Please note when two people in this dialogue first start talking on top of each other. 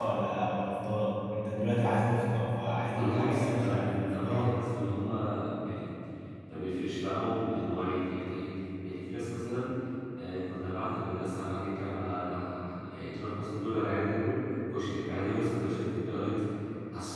2.8 s

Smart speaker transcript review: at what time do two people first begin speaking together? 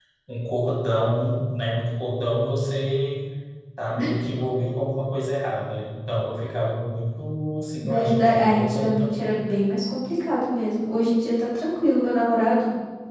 7.8 s

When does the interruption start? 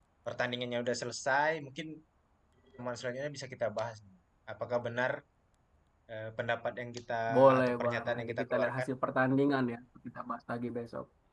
7.3 s

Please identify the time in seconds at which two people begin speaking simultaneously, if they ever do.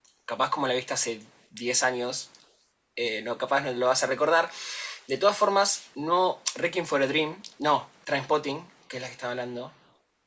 none

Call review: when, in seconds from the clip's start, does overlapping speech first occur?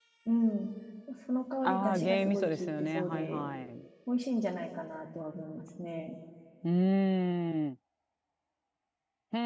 1.6 s

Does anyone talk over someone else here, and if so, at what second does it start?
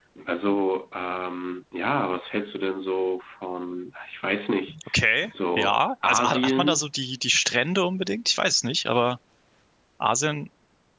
5.6 s

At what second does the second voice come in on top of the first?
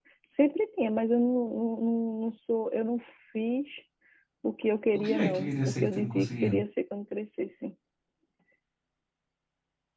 5.0 s

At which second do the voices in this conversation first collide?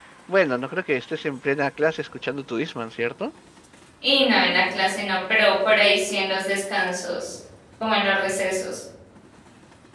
none

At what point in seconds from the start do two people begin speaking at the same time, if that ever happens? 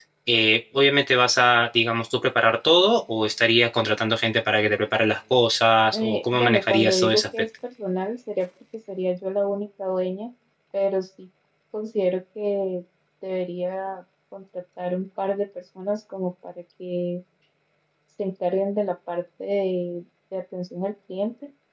5.9 s

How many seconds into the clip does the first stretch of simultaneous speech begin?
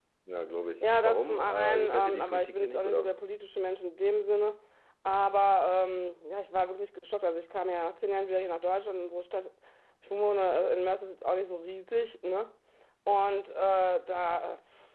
0.8 s

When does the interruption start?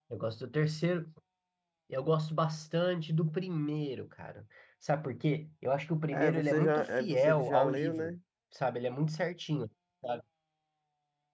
6.1 s

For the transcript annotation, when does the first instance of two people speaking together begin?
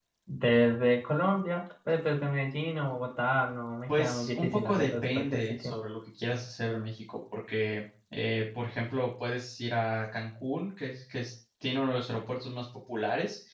3.9 s

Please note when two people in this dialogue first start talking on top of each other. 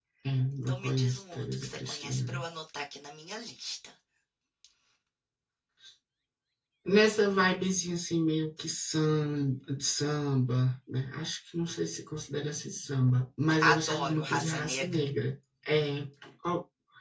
0.7 s

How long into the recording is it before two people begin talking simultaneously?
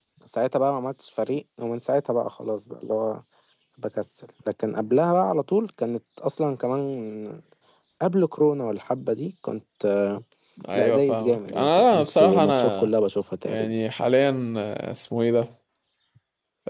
10.7 s

